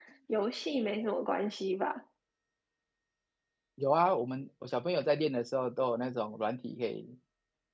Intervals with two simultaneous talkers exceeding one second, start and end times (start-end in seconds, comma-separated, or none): none